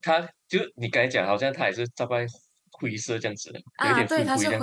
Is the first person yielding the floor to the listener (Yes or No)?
Yes